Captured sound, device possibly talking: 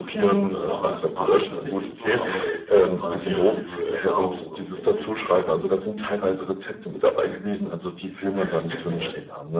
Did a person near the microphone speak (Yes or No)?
Yes